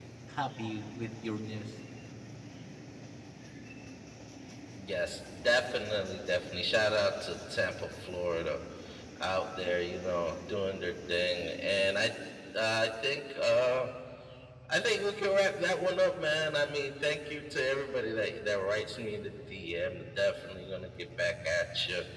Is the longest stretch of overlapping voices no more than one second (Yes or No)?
Yes